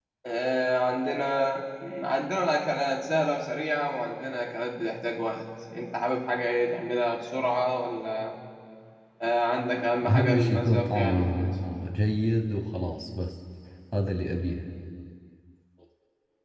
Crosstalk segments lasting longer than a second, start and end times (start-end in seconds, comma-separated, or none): 10.1-11.6